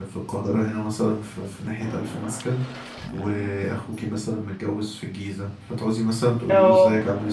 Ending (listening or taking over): listening